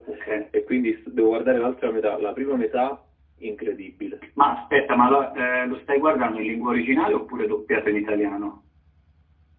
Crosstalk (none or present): none